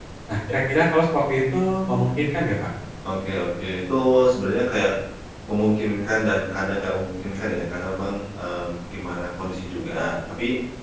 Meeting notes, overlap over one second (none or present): none